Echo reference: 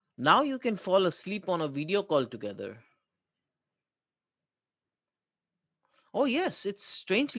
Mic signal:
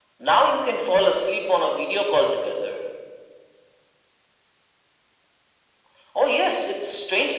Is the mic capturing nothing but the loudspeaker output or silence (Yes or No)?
Yes